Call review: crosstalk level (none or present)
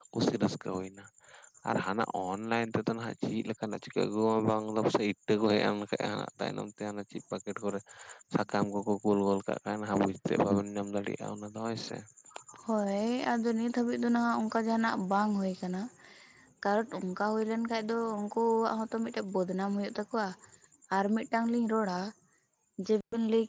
none